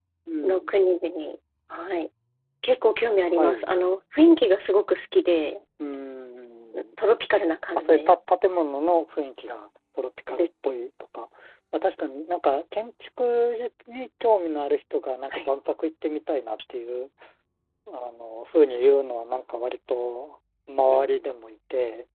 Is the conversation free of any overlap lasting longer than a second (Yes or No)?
Yes